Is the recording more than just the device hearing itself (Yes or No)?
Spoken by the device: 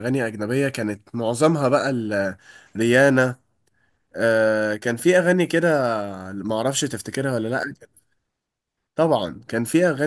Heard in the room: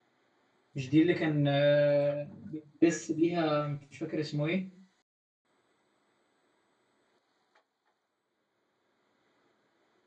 Yes